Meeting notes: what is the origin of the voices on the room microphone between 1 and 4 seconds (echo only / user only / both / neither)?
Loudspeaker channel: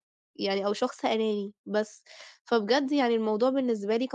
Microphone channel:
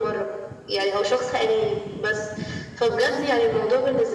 echo only